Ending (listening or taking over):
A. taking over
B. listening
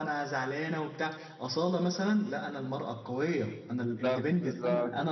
B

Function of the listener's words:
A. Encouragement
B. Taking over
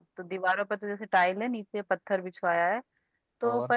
A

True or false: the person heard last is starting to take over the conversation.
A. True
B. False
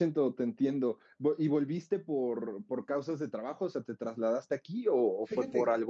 A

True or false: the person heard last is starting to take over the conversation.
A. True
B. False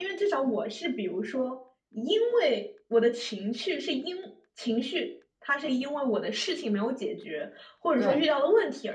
B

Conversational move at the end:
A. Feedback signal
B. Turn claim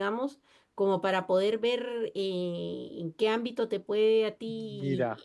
B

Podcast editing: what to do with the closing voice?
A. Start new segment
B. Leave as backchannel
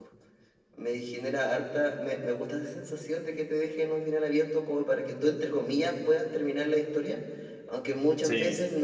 B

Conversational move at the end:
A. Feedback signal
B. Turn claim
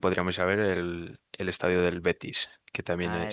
B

